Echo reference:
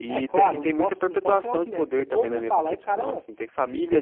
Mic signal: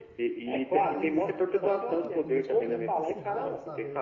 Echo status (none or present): present